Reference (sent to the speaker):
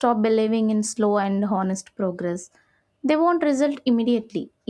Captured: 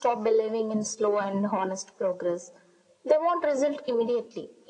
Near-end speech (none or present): none